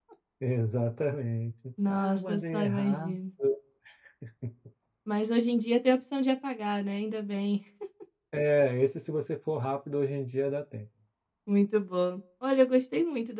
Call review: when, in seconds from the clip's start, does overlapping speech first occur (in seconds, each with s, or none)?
1.8 s